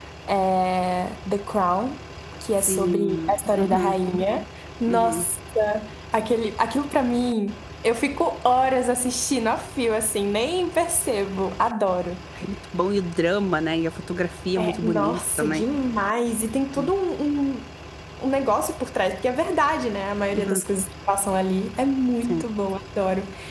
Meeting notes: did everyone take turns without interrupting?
No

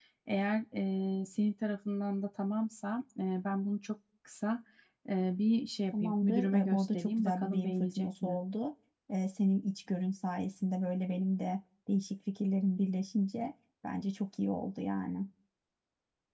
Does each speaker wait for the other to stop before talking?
No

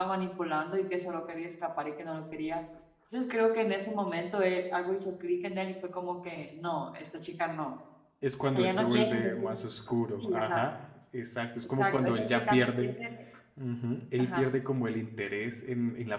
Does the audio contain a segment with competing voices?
Yes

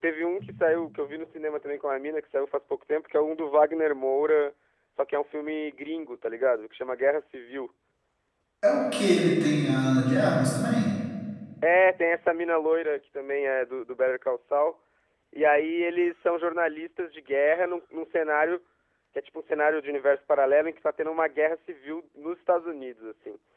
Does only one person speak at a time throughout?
Yes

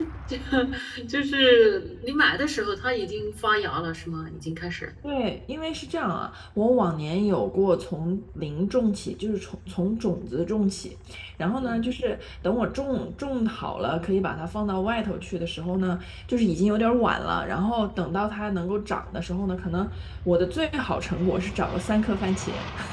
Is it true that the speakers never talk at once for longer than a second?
Yes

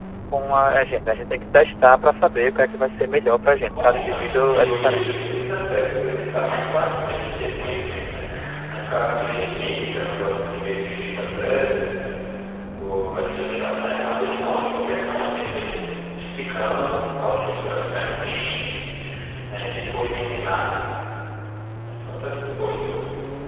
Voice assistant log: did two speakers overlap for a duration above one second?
Yes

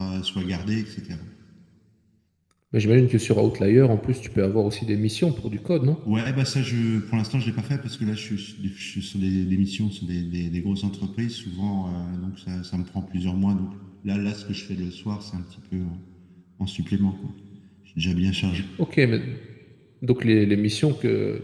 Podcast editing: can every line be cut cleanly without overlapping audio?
Yes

